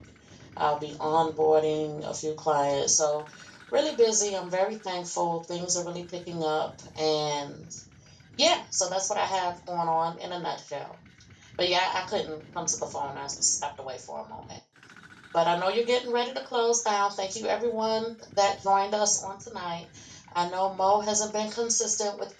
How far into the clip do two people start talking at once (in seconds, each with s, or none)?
none